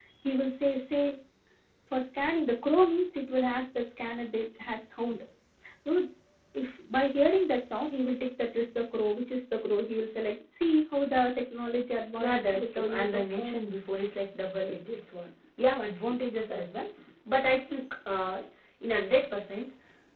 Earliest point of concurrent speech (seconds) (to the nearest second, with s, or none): 12 s